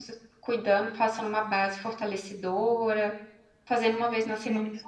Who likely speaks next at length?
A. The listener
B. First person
B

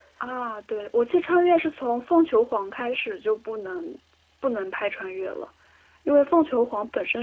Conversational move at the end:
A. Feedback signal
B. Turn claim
A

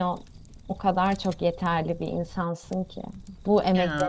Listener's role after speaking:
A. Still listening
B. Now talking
A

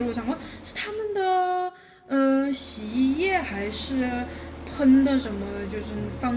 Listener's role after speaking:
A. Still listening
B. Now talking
B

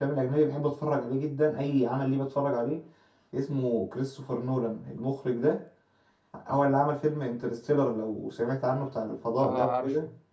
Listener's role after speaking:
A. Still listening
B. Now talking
B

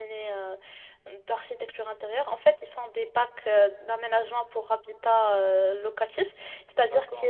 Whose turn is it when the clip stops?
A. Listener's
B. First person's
B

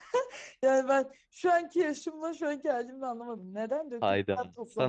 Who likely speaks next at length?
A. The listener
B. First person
A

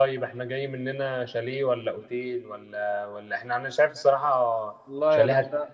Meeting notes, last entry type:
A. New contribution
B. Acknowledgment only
A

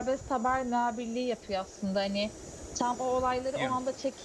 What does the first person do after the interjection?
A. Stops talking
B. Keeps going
B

